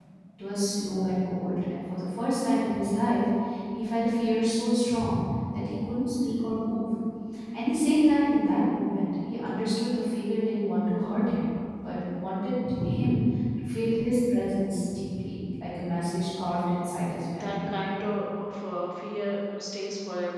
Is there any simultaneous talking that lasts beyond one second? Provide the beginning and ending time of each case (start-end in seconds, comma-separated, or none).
none